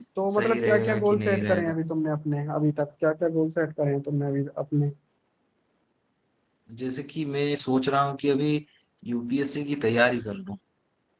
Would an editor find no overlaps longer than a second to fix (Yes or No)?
No